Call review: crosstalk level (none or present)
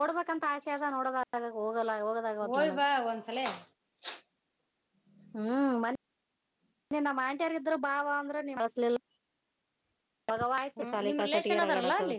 present